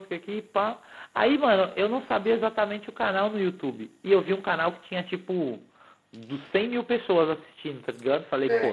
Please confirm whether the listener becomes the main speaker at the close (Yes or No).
No